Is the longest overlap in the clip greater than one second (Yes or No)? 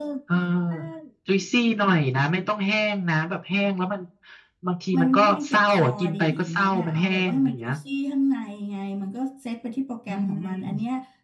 Yes